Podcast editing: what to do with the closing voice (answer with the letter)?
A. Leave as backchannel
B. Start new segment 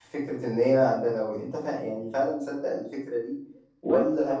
A